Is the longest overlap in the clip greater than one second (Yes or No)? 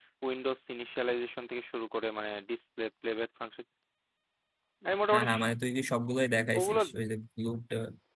No